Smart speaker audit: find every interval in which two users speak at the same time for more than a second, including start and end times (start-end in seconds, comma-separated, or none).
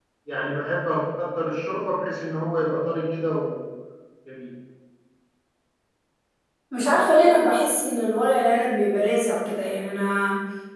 none